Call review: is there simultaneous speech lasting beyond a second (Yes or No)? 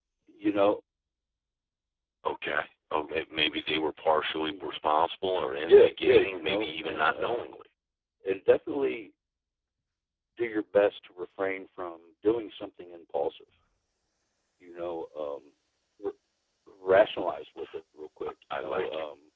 Yes